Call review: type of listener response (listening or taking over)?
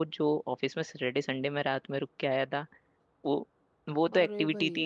listening